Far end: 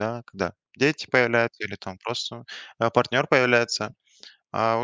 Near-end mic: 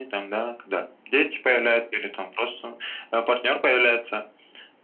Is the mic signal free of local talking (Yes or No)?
Yes